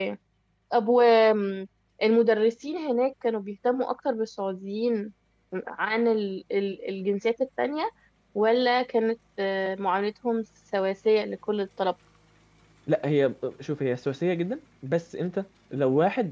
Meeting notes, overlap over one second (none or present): none